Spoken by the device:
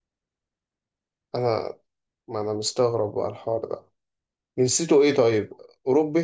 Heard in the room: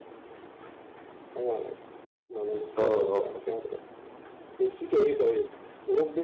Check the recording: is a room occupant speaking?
Yes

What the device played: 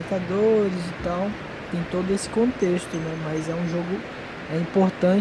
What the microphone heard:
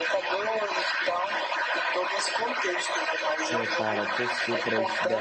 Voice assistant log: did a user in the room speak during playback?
Yes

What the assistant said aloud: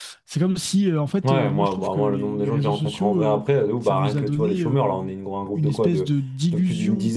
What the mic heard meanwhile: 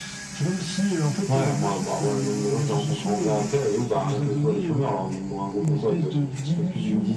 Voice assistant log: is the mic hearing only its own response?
Yes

